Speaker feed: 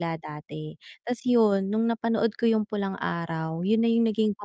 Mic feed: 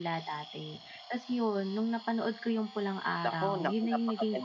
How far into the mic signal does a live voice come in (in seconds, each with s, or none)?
3.2 s